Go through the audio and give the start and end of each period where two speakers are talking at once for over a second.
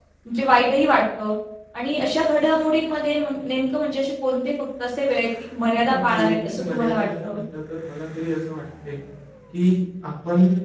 5.9-7.4

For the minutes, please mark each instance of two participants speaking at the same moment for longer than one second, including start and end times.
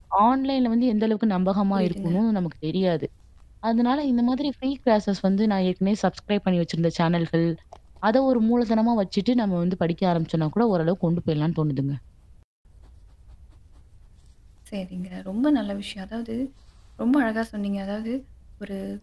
none

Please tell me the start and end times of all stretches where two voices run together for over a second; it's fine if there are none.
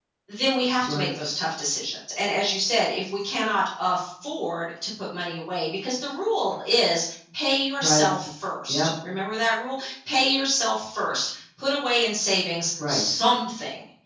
none

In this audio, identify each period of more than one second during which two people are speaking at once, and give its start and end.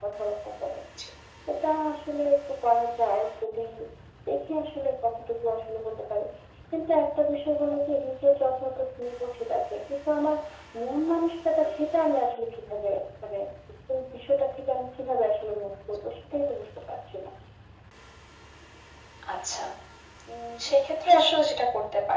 none

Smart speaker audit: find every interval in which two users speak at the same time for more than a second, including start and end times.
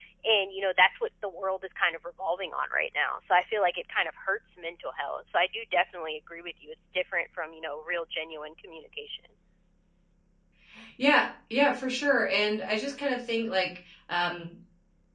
none

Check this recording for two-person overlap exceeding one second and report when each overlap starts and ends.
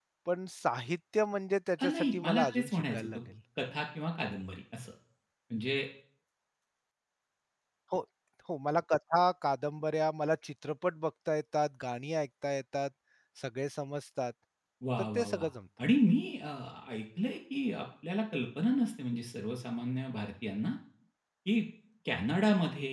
1.8-3.2

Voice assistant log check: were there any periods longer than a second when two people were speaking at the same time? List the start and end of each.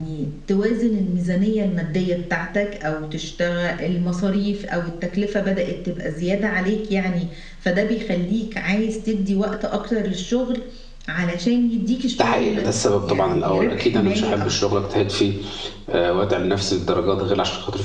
13.0-14.5

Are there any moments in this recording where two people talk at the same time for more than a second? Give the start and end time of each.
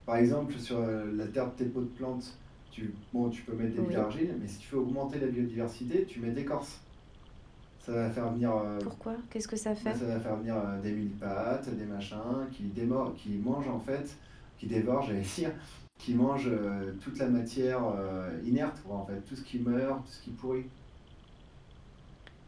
none

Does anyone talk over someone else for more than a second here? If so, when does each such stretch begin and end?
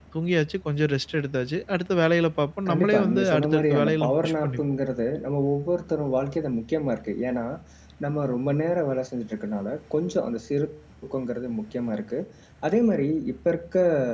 2.7-4.6

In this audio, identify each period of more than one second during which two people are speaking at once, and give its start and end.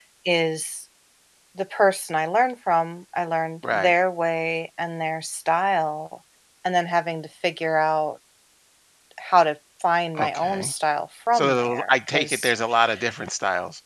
11.3-12.5

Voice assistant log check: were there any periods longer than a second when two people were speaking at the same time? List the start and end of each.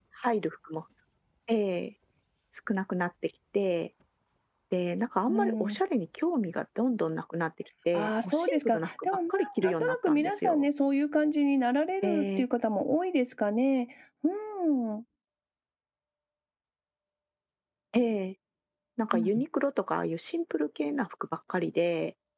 7.9-10.7

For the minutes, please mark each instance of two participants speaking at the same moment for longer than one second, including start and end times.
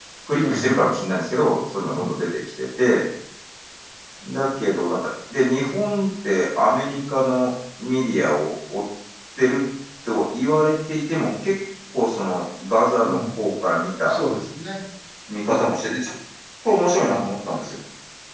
none

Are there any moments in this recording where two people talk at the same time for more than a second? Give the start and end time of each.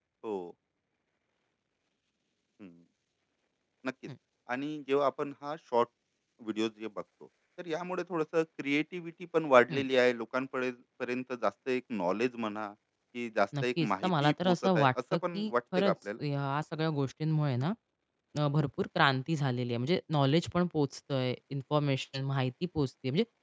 13.6-15.9

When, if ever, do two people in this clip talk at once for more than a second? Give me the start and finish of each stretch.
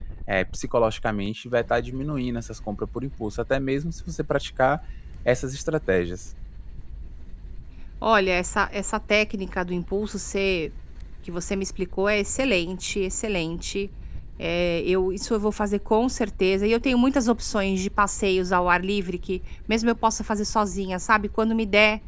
none

